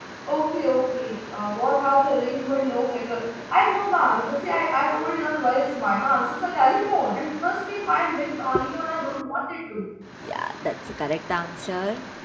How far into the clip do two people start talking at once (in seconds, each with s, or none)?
none